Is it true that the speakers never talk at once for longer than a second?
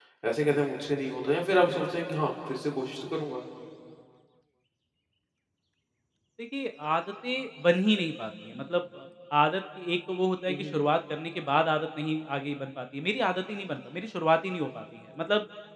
Yes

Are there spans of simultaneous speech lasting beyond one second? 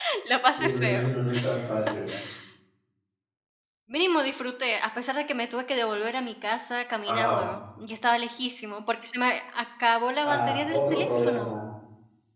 Yes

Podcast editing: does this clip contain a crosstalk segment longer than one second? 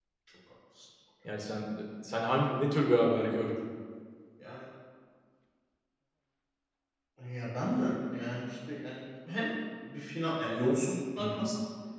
No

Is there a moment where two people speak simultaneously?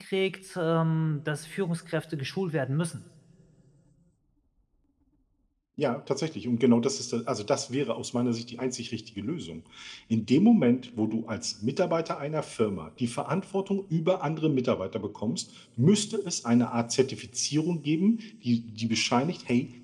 No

